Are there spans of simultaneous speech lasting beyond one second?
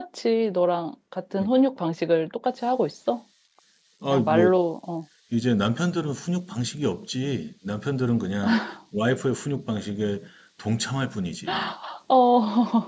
No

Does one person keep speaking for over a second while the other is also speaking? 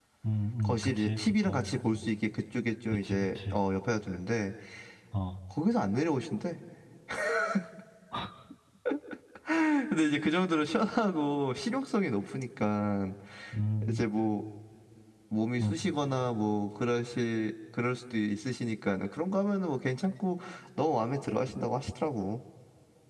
Yes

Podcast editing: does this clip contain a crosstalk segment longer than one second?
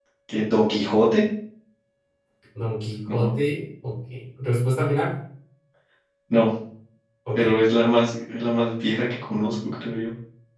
No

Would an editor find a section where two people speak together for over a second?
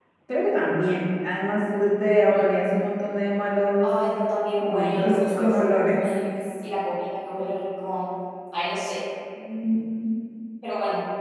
Yes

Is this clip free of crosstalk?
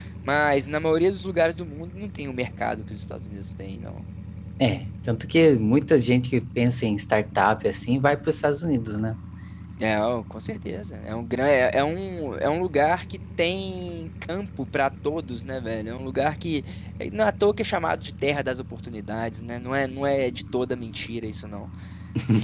Yes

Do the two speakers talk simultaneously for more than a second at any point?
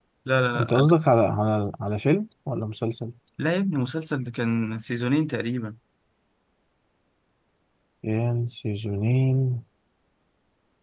No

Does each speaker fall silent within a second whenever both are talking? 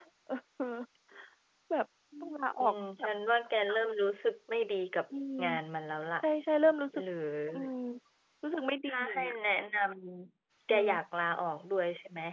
Yes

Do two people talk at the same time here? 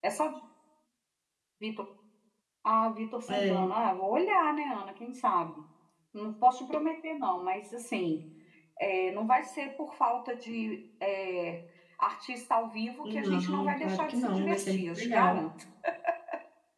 Yes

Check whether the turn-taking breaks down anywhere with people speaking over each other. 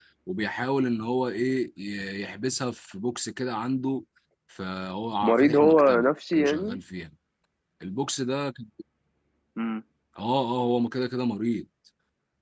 Yes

